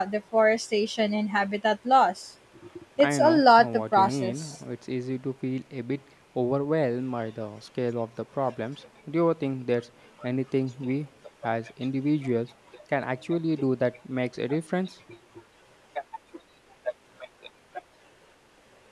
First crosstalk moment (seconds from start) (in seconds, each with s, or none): 3.0 s